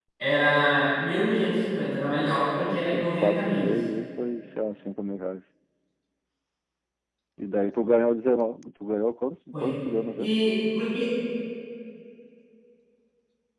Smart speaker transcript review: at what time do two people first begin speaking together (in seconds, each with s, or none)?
1.8 s